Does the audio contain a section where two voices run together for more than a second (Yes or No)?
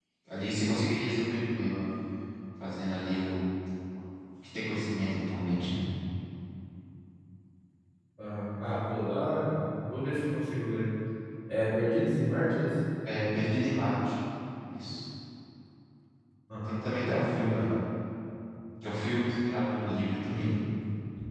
No